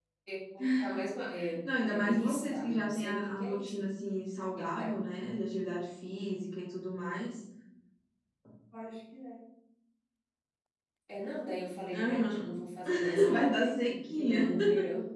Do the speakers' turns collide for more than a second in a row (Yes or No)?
Yes